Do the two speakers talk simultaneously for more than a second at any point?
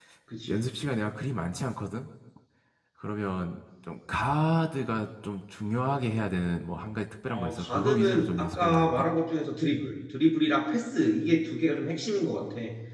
Yes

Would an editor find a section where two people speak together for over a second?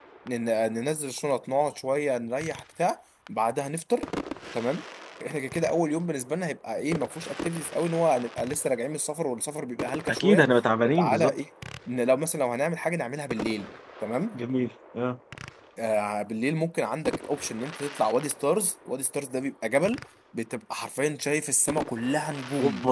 No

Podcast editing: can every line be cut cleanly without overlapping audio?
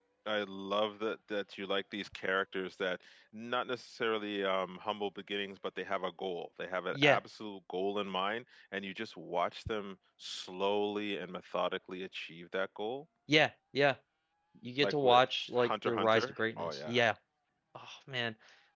No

